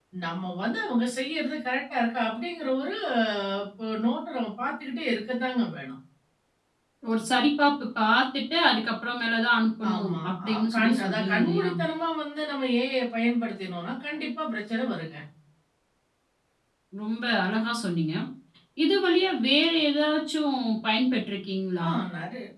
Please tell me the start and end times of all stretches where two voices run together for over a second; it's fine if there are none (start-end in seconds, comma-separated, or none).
9.9-11.7